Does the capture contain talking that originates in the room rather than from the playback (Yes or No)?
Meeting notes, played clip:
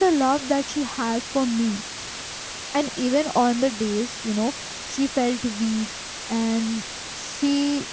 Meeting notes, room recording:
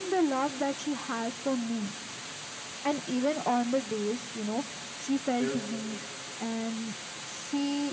Yes